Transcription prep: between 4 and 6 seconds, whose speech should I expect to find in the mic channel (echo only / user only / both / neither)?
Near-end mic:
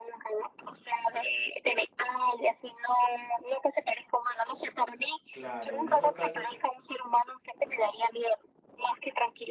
both